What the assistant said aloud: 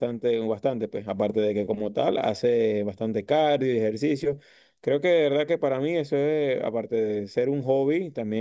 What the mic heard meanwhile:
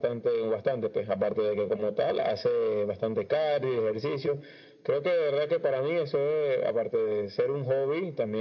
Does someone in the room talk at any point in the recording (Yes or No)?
No